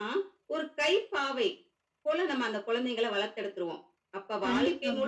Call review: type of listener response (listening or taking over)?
listening